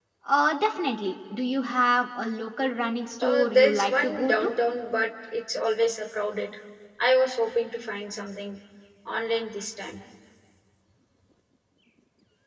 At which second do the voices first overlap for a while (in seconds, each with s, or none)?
3.2 s